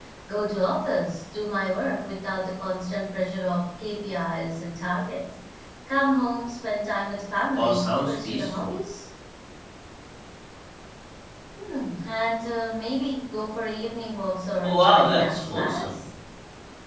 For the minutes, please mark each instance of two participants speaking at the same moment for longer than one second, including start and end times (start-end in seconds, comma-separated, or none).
7.6-8.8, 14.6-16.0